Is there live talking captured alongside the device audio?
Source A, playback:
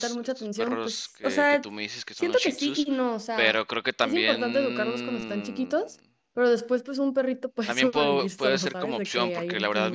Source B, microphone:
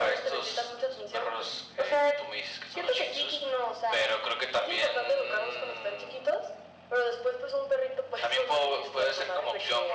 No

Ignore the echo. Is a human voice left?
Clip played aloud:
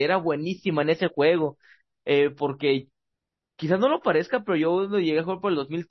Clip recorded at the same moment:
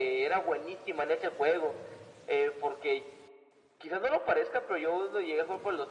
No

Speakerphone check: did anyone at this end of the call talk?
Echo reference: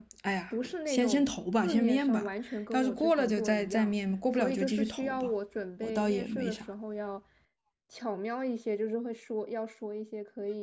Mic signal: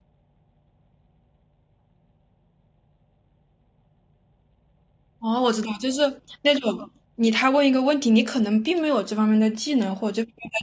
Yes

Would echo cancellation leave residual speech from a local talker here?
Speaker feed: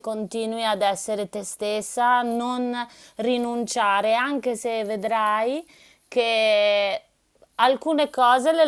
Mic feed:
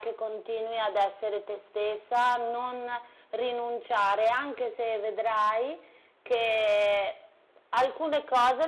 No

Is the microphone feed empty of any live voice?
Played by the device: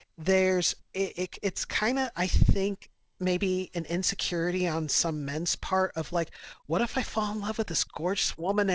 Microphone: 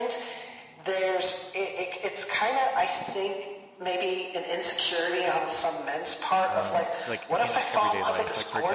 No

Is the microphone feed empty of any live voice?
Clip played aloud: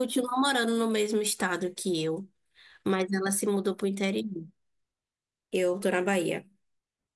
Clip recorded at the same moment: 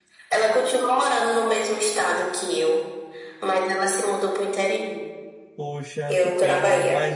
No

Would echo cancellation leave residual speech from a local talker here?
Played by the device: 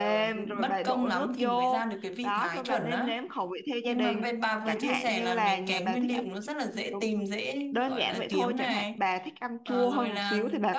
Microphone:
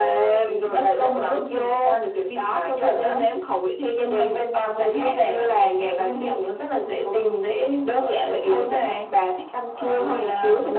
No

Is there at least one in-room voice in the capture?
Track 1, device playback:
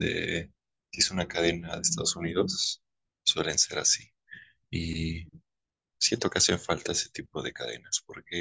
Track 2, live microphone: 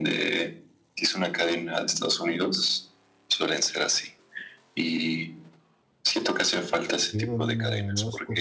Yes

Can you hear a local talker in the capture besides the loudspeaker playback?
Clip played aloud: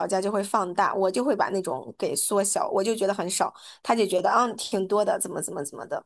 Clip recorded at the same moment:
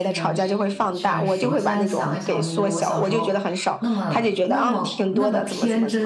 Yes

